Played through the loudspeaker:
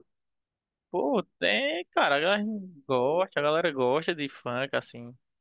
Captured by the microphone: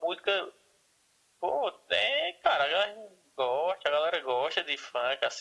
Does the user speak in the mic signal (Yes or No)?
No